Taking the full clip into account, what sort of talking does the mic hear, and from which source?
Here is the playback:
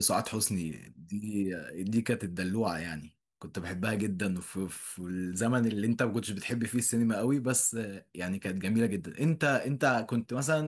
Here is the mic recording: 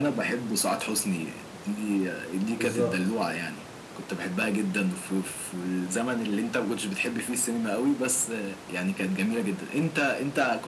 both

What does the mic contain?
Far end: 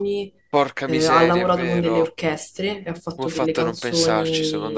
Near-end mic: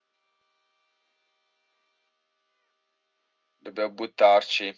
user only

